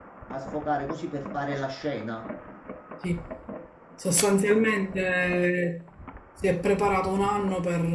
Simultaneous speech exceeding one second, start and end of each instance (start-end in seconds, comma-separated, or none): none